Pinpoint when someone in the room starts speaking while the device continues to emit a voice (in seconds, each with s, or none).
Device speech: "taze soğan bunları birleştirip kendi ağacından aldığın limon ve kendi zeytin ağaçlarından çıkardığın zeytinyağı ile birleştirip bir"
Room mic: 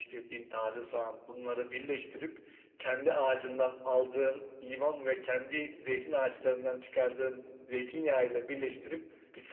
none